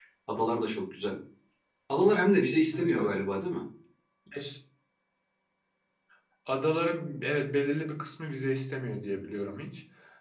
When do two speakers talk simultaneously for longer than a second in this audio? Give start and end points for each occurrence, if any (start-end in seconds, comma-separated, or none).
none